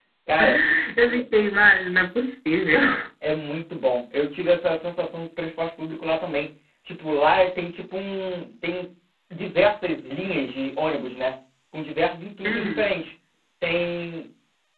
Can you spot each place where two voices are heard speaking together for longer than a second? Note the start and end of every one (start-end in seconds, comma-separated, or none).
none